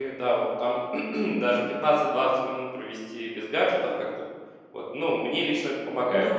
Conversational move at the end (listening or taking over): taking over